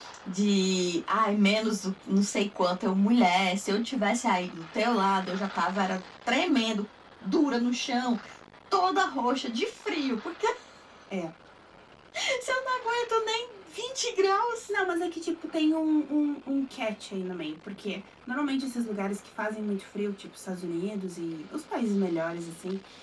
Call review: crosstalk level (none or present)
none